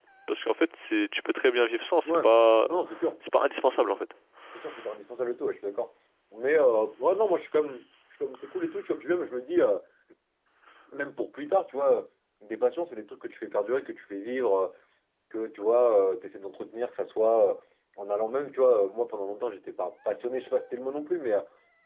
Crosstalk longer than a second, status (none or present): none